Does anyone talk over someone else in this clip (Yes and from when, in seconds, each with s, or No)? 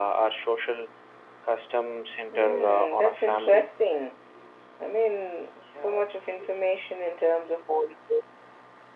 Yes, from 2.3 s